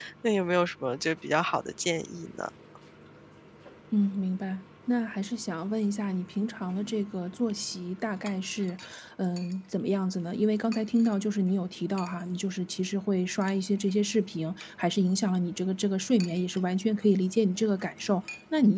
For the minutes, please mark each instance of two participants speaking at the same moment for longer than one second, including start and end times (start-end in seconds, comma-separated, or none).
none